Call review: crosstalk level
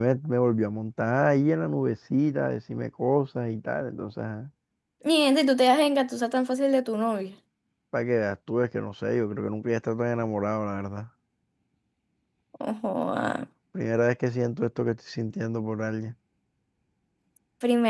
none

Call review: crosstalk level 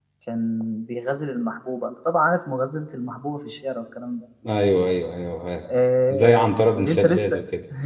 present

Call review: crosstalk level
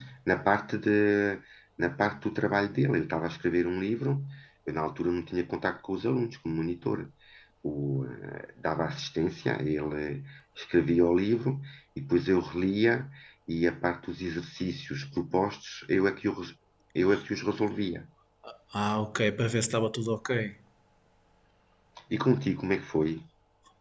none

